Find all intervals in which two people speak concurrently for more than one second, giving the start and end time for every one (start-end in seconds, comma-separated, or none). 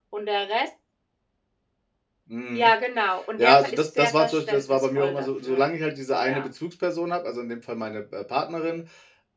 3.4-5.7